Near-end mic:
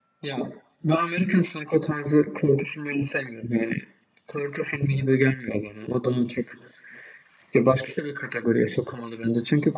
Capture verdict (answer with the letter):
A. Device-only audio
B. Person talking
A